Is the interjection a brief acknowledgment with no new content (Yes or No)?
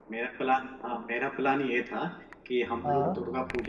Yes